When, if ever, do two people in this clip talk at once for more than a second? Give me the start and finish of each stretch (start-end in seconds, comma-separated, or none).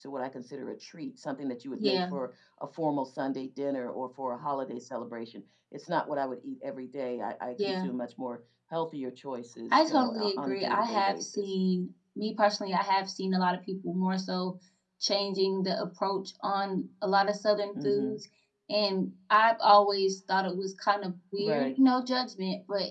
9.7-11.5